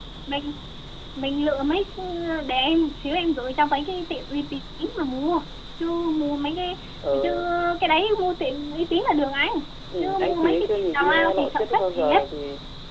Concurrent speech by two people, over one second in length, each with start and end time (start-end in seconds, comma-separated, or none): 10.0-12.2